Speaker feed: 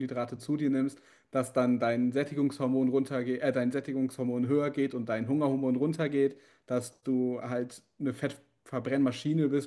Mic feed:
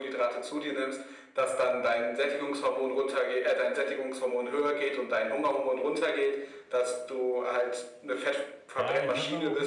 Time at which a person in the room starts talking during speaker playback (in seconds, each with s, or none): 8.8 s